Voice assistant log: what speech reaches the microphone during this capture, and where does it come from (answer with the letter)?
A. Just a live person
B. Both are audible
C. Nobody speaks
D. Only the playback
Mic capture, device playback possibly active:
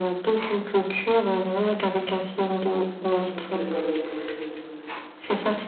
B